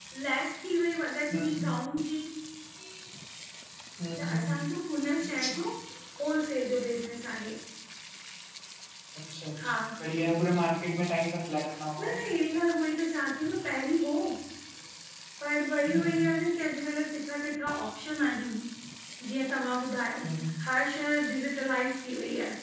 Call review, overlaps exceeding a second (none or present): none